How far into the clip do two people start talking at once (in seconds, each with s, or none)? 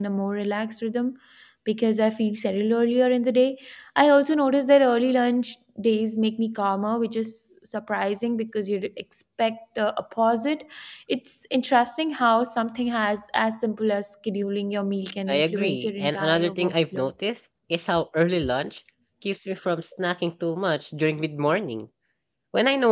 15.3 s